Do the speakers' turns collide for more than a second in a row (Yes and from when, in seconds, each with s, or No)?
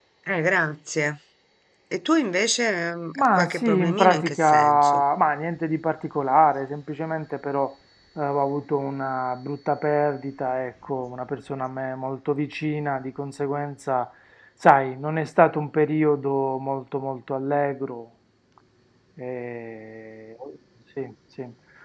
Yes, from 3.2 s